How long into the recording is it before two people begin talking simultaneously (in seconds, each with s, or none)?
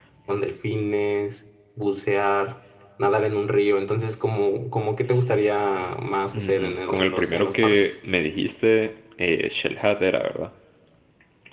6.3 s